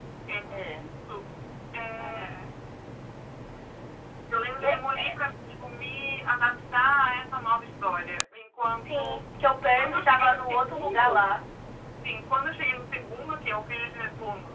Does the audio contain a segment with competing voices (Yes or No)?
Yes